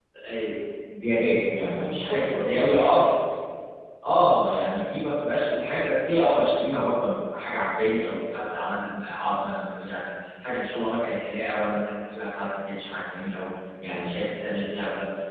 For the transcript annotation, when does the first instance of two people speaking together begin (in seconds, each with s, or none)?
1.7 s